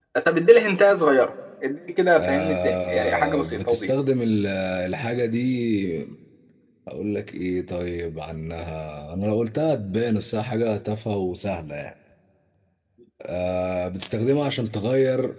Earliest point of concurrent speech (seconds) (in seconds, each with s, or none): 2.2 s